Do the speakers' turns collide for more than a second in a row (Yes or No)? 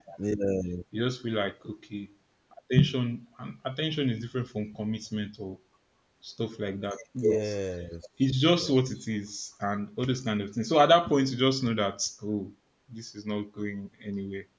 No